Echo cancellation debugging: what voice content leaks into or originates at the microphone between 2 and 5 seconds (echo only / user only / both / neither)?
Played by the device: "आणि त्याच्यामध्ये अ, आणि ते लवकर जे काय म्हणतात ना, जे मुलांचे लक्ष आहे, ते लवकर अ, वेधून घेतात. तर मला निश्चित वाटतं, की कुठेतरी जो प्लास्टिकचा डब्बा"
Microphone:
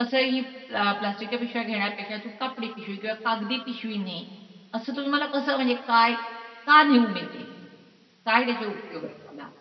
user only